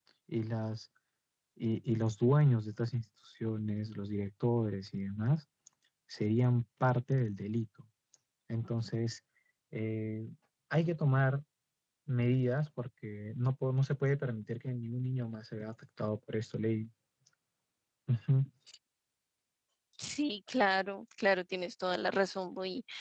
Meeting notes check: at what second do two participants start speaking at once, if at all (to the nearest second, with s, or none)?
none